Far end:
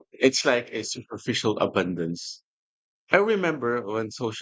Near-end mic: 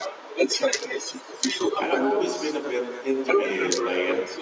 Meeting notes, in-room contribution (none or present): present